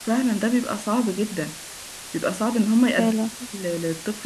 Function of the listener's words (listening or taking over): listening